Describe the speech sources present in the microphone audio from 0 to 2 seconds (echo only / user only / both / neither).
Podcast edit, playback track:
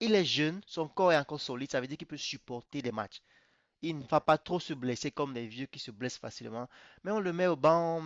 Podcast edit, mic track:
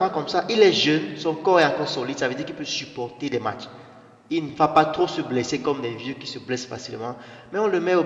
echo only